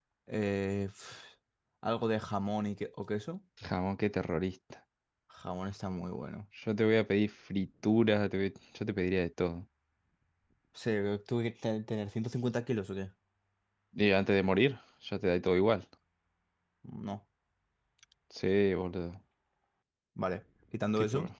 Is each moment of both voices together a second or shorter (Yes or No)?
Yes